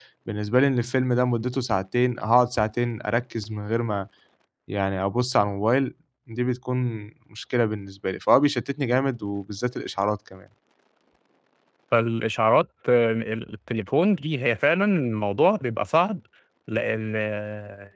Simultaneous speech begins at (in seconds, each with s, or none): none